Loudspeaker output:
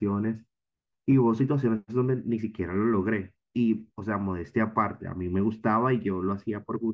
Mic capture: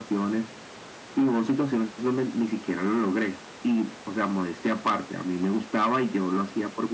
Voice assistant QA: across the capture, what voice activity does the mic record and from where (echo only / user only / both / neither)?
echo only